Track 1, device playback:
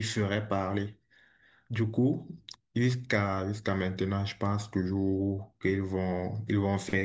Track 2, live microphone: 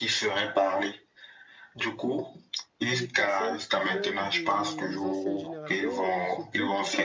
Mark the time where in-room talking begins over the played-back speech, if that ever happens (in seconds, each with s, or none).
2.9 s